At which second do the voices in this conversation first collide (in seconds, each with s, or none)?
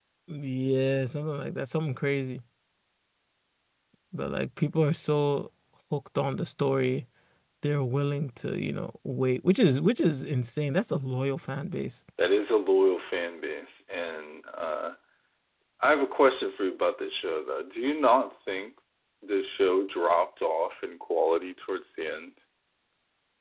none